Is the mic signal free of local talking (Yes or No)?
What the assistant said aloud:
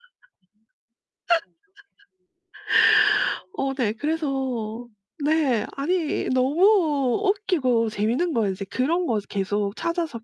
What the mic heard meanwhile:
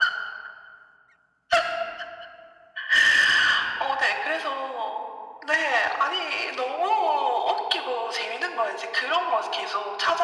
Yes